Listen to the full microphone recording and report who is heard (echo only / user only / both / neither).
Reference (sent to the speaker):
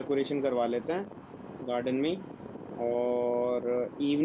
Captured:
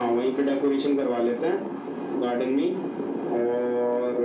echo only